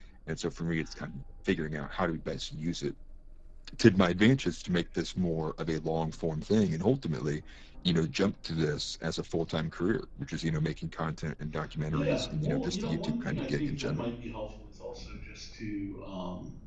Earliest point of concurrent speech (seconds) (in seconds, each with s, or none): 11.9 s